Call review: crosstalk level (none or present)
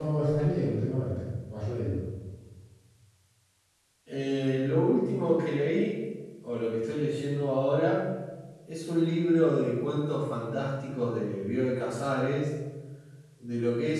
none